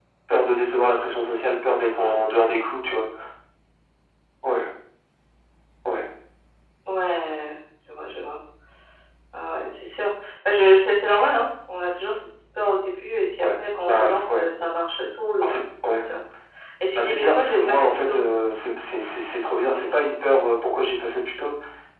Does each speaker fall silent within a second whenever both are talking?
No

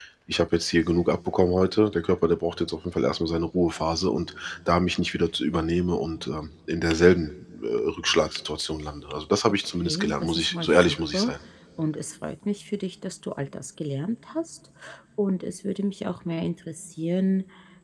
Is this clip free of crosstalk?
No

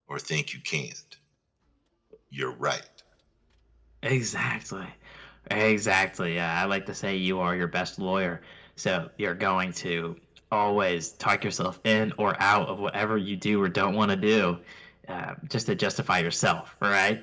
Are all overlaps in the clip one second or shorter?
Yes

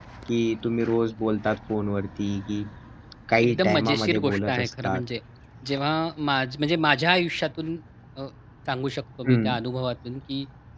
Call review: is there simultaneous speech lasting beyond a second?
Yes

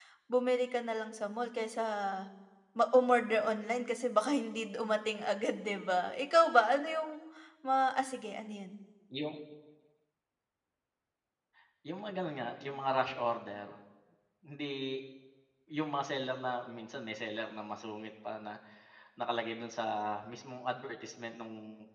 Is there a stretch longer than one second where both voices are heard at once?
No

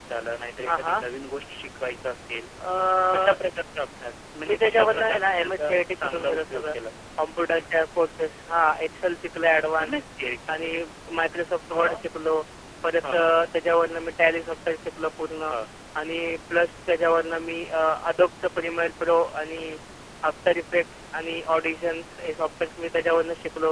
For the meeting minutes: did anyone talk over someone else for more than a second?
Yes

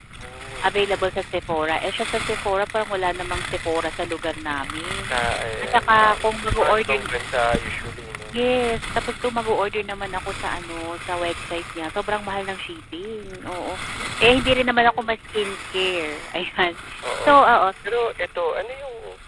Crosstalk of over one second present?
Yes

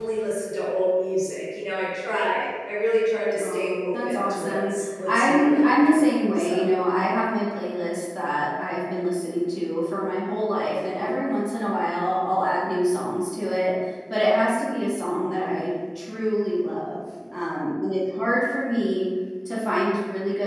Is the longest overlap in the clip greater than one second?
Yes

